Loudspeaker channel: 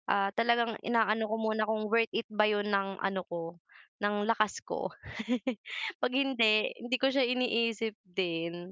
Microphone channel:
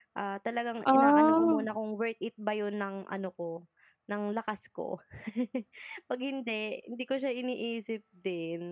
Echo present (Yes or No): Yes